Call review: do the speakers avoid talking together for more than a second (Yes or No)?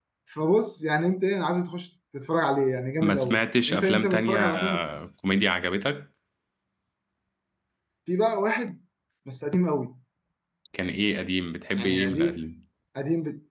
No